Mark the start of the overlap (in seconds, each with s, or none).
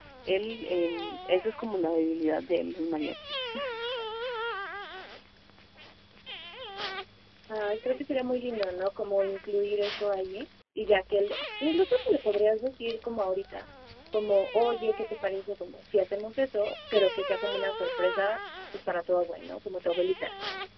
none